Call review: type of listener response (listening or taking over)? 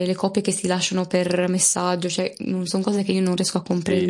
taking over